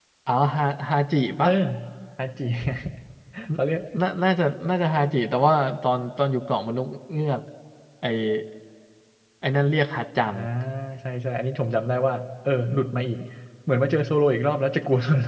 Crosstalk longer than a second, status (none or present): none